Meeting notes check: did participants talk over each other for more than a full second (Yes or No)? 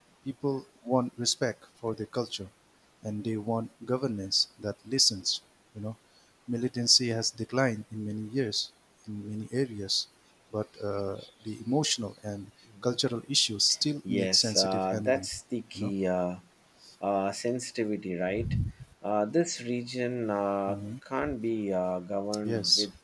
Yes